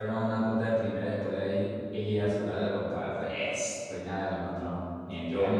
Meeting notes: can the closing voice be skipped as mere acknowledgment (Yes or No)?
No